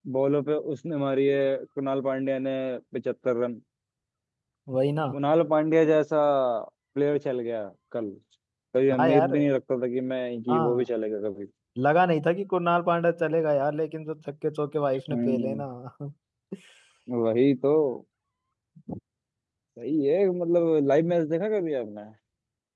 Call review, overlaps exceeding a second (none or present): none